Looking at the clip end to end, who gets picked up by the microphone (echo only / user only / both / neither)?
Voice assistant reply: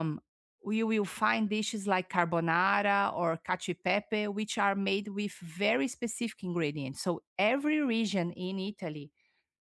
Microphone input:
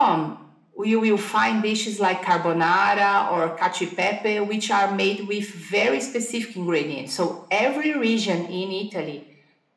echo only